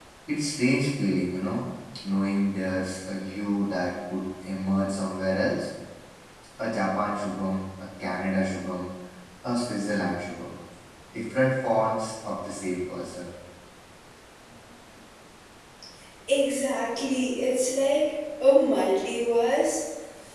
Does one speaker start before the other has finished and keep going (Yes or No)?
No